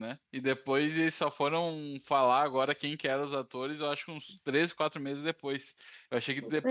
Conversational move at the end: listening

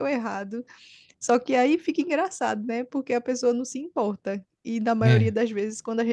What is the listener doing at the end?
listening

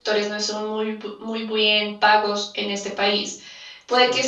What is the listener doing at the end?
listening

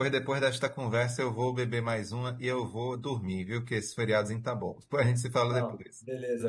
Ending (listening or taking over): taking over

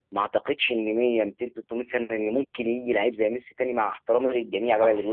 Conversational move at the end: listening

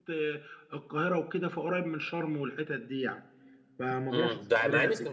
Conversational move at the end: taking over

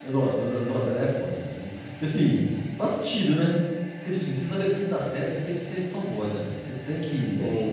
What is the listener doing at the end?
listening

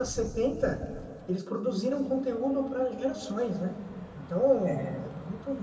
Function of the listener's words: listening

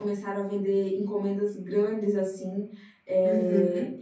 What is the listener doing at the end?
listening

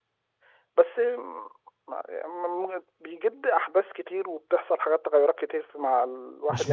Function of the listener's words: listening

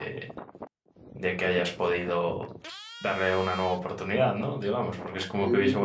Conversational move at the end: taking over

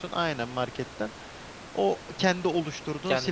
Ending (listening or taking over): taking over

